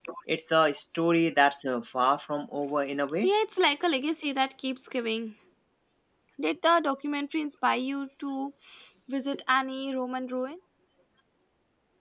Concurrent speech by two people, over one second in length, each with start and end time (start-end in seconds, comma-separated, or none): none